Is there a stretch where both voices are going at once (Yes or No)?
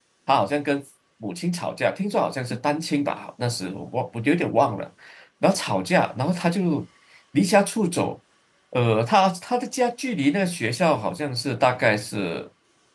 No